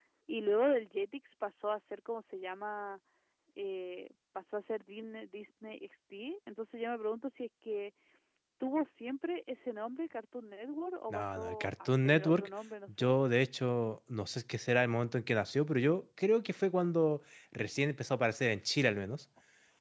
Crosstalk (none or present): present